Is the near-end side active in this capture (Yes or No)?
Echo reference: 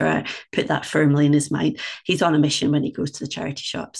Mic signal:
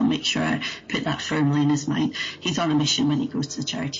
No